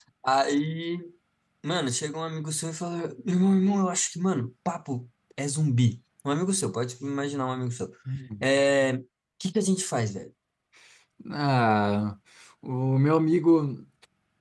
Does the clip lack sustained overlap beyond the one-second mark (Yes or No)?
Yes